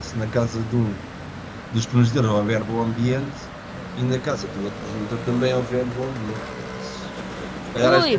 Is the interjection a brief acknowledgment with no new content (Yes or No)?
Yes